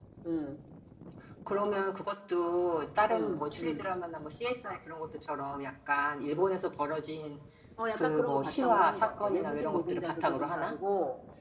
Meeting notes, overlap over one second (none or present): present